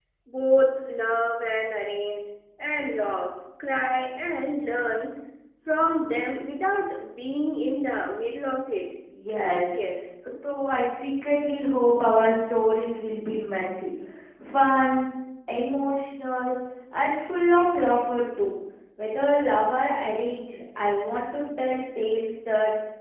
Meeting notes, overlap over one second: none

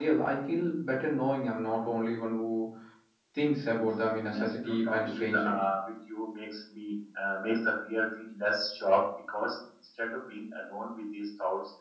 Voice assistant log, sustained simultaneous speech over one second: present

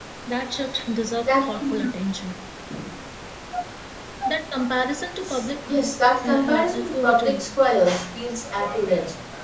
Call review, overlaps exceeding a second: present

